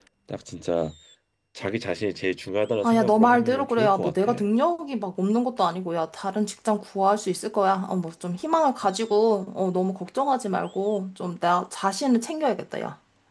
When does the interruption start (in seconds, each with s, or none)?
2.8 s